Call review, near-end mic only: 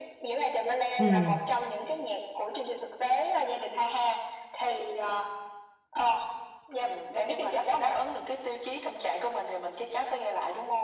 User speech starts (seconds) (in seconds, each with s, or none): 1.0 s